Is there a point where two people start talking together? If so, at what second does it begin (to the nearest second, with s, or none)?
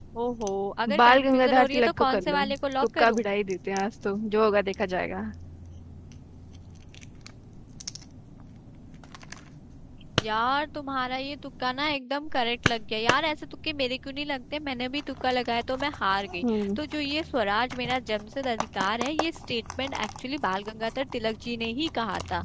1 s